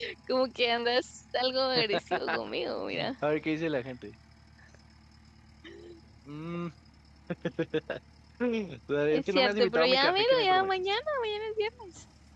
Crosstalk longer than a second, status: present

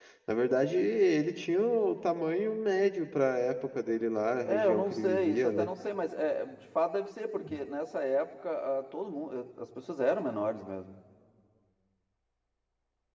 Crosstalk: present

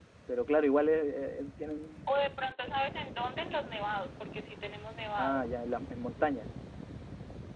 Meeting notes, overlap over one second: none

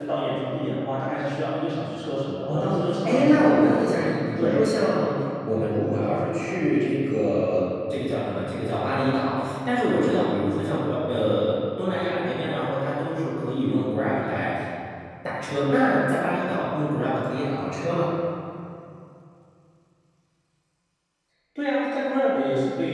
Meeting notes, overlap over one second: present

